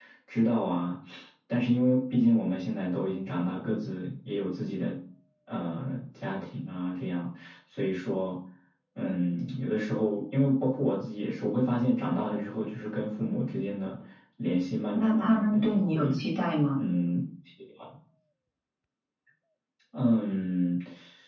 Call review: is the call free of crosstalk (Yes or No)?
No